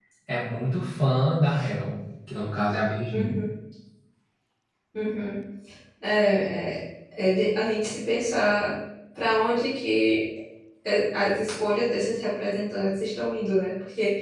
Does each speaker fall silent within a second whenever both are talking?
Yes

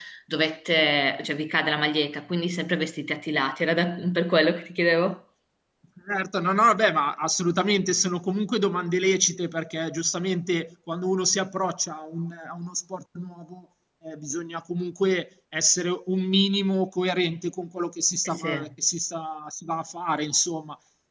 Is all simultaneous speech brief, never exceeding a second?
Yes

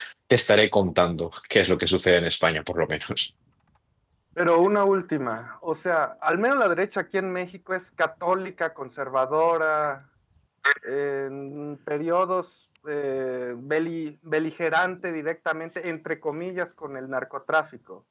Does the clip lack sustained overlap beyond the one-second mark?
Yes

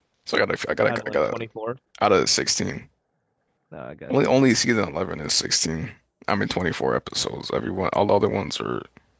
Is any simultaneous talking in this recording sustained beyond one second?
No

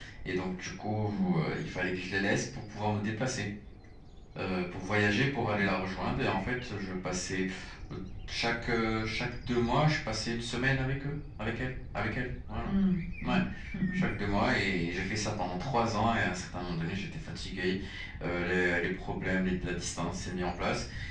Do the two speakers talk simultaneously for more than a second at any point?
No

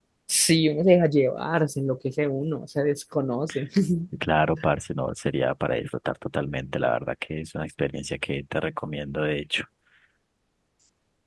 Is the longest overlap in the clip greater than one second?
No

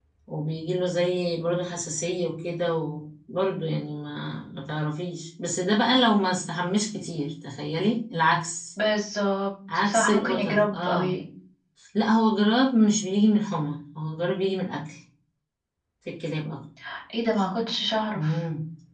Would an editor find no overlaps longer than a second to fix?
No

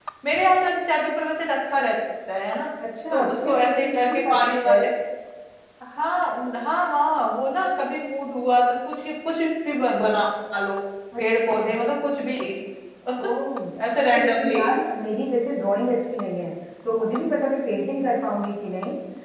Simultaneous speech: Yes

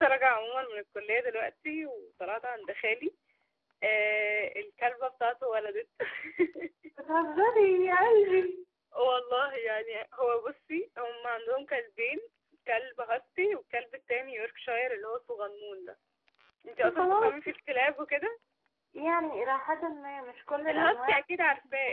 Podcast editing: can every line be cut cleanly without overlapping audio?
No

